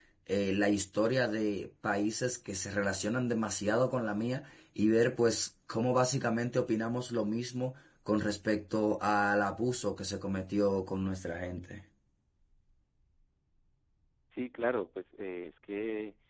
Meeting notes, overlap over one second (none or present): none